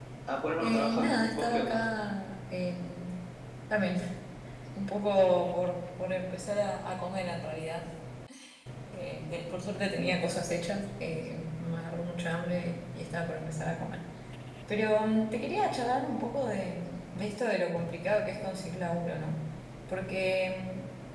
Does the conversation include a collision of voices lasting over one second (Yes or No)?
Yes